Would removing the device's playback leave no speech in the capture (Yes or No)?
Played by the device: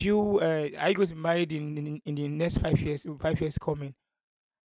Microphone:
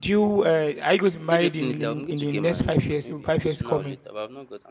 No